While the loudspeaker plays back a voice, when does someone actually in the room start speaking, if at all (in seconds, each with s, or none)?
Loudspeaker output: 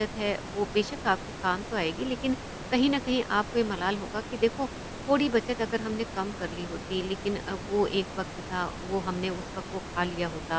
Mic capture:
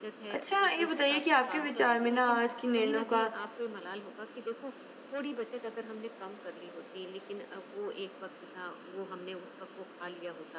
0.3 s